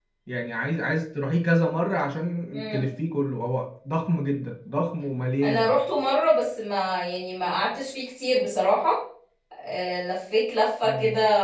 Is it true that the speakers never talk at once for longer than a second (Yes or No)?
Yes